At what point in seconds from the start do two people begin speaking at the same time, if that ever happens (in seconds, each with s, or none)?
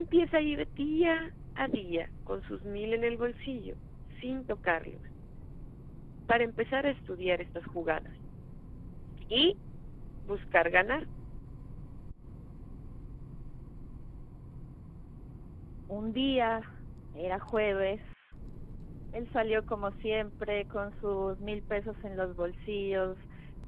none